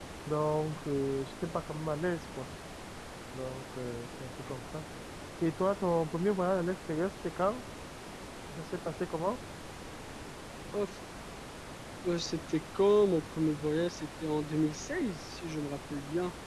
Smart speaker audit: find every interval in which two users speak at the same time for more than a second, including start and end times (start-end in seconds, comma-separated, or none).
none